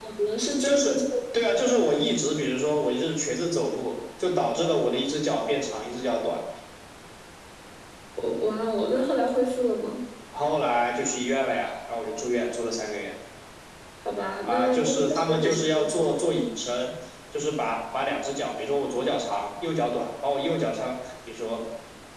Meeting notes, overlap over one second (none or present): present